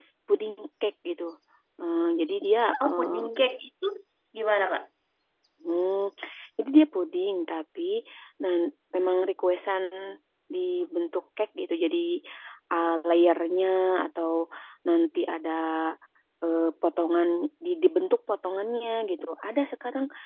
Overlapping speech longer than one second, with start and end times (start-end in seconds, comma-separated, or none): none